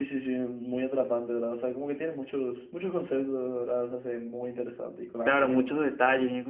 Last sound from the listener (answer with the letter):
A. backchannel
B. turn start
B